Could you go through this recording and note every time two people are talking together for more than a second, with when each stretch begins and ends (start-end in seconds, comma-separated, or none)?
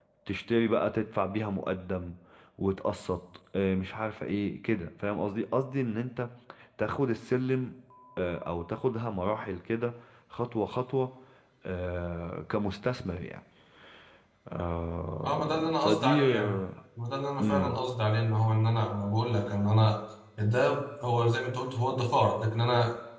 15.2-16.6